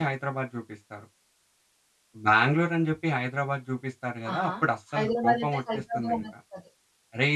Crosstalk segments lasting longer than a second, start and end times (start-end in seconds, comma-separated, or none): 4.9-6.2